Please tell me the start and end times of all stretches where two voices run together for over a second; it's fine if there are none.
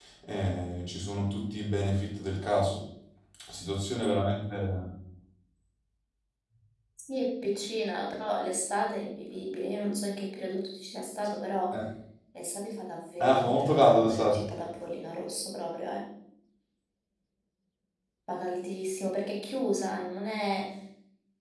13.2-14.4

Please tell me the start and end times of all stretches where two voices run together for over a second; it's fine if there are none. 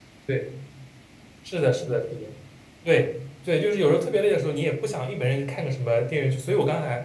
none

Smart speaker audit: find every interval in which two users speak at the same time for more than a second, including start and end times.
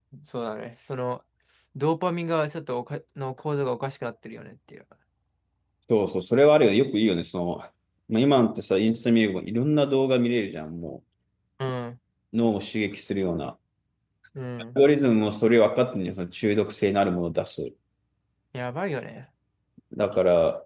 none

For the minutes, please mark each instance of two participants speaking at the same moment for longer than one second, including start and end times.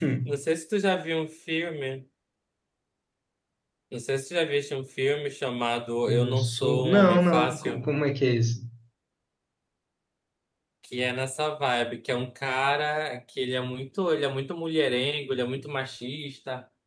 6.1-7.8

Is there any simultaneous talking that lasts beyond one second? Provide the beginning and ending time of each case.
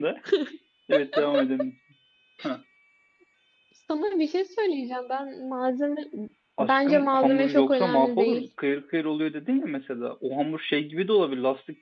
6.6-8.5

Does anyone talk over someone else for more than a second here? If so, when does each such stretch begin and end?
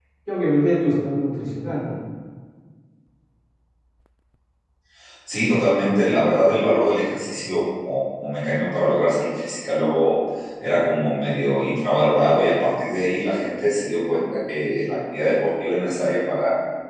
none

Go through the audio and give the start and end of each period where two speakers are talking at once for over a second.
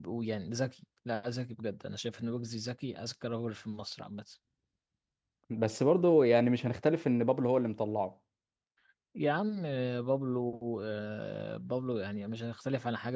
none

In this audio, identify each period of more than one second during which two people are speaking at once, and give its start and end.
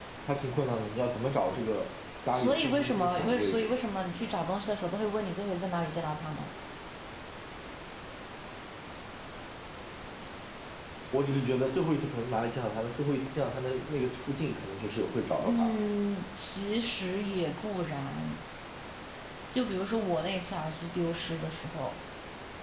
2.3-3.7

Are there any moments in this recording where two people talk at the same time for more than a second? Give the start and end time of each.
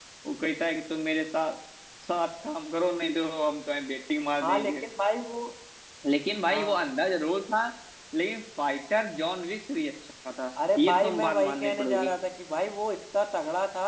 10.8-12.1

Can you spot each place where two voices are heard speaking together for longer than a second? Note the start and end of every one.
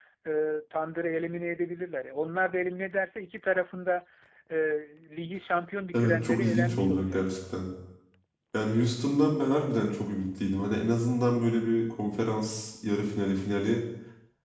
5.9-7.2

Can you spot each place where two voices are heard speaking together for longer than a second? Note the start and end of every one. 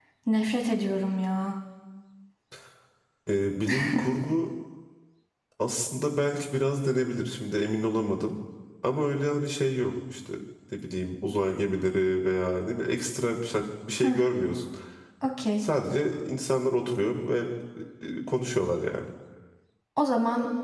none

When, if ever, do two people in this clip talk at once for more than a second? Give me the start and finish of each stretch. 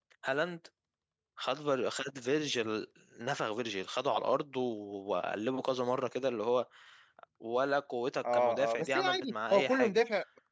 8.3-10.0

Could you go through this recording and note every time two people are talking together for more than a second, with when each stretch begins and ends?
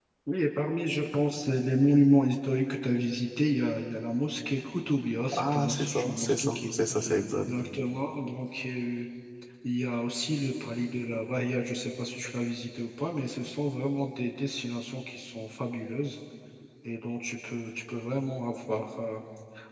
5.3-6.6

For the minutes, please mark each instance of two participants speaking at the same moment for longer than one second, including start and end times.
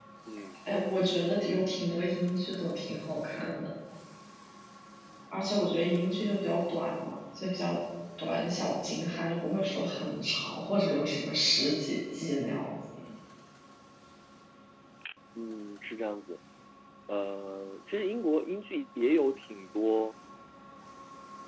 none

